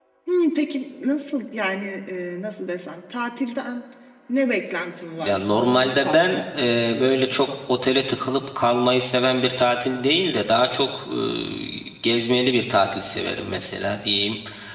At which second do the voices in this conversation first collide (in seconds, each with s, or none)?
5.2 s